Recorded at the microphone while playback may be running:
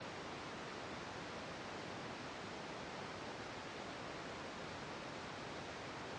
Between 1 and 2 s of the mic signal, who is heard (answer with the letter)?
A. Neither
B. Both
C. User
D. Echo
A